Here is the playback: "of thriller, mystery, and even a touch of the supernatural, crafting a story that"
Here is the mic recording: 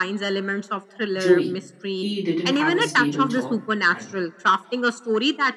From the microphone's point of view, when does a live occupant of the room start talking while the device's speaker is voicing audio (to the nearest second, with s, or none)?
1 s